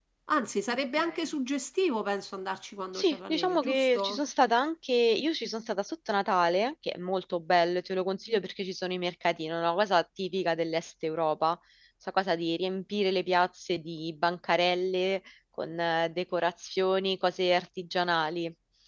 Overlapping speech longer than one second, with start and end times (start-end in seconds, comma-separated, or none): 3.0-4.2